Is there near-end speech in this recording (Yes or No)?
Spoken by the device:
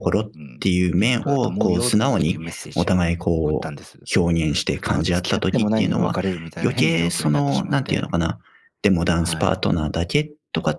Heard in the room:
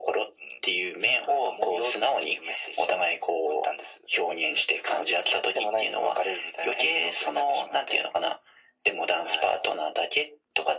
No